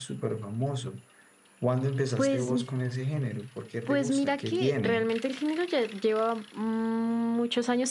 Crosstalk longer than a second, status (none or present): present